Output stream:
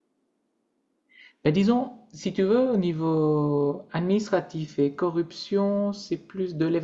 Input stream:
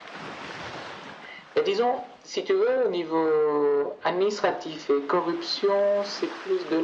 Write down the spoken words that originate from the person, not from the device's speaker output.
none

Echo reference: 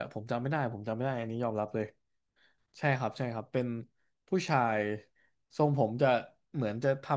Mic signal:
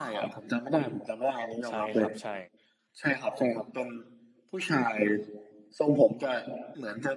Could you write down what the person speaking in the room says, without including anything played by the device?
ใช่ครับใช่

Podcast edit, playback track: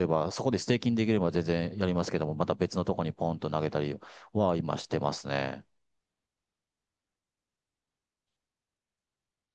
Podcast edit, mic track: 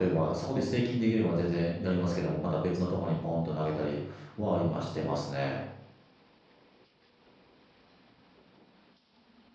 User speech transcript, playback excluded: none

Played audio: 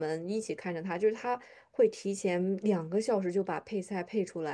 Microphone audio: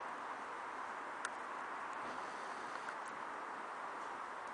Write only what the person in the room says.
none

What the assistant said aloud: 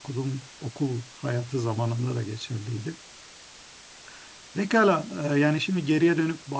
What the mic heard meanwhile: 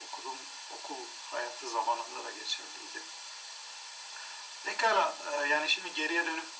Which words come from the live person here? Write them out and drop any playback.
none

